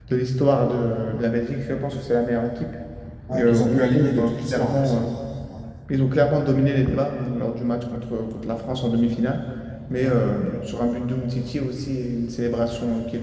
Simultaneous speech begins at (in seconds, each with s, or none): 3.3 s